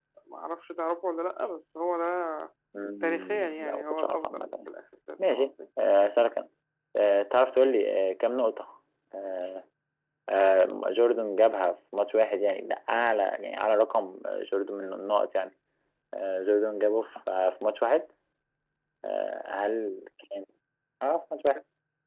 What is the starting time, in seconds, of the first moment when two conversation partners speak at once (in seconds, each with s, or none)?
3.0 s